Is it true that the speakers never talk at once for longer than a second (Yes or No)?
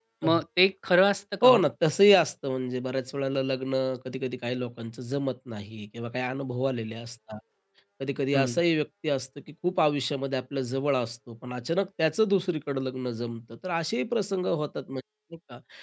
Yes